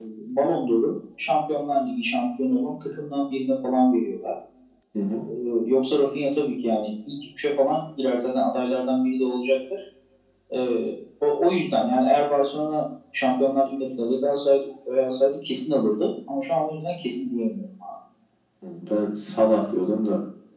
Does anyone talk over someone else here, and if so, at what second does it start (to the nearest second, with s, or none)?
none